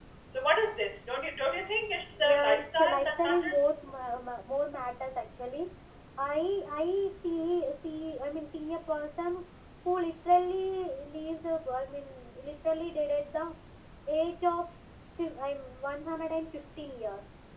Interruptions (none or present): present